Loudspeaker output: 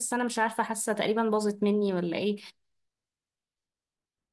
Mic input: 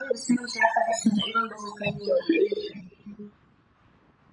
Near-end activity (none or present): none